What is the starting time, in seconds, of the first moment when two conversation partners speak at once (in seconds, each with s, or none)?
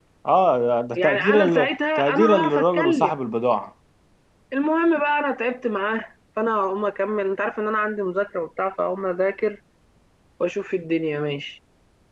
1.0 s